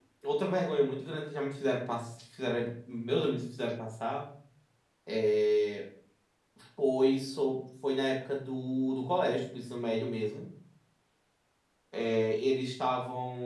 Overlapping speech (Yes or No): No